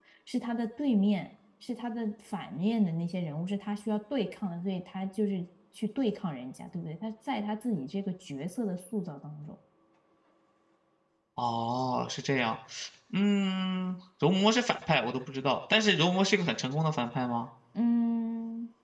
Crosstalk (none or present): none